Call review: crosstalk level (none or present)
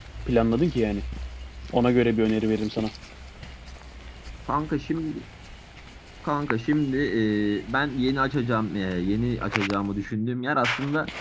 none